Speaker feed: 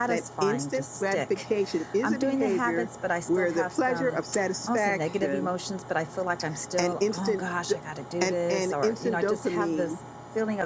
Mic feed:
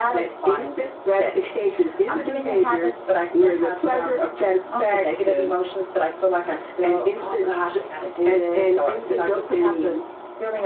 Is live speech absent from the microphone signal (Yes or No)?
Yes